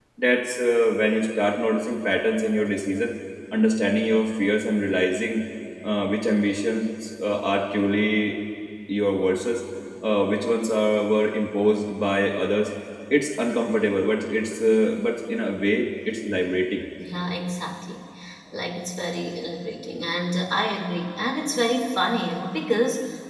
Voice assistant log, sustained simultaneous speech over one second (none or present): none